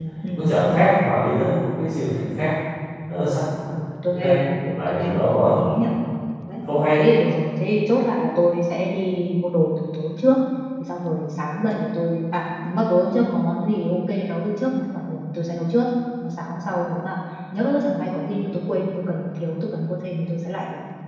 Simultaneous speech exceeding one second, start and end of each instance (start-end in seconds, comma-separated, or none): 4.1-5.6